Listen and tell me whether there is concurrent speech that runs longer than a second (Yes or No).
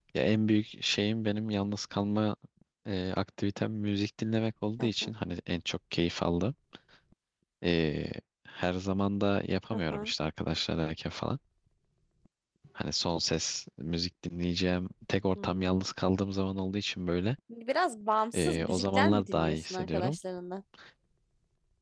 Yes